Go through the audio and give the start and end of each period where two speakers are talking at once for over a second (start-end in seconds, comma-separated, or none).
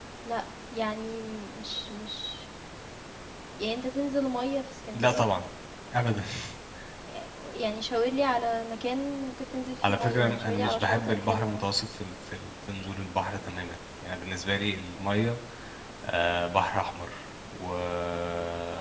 9.8-11.6